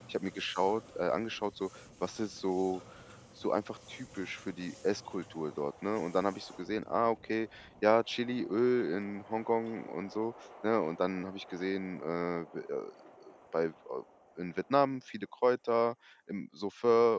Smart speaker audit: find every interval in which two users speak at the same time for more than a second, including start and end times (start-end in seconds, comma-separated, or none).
none